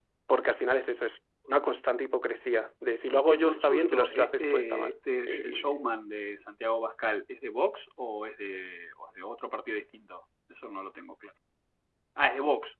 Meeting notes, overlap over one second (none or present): present